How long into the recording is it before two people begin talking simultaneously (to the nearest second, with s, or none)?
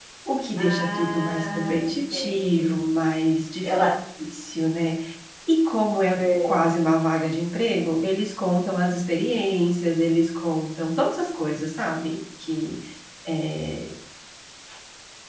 1 s